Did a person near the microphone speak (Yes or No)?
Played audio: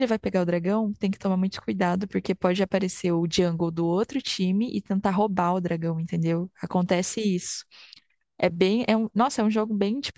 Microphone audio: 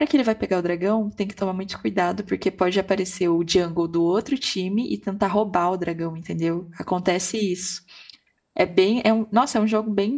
No